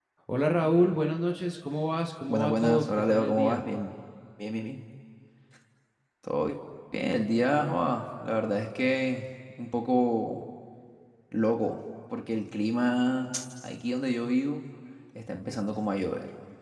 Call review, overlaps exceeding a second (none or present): present